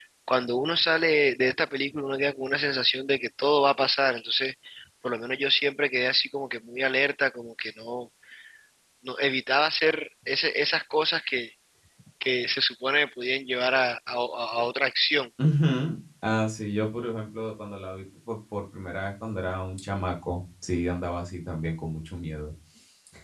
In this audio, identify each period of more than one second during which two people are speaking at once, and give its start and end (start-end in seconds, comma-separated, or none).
none